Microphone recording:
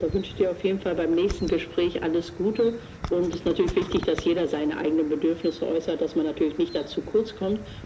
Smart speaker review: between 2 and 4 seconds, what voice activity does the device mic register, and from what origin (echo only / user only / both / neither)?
echo only